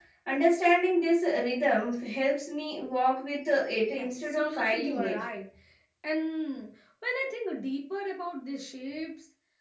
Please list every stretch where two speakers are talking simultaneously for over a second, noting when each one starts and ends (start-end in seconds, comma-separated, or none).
4.0-5.2